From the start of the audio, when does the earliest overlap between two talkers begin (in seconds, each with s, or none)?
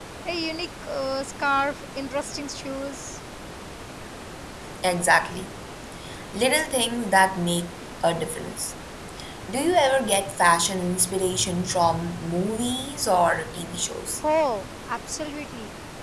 none